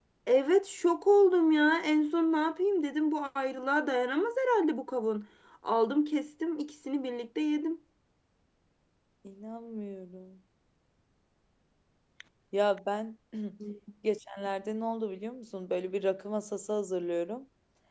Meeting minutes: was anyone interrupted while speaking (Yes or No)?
No